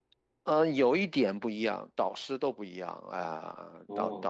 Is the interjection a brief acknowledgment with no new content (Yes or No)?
No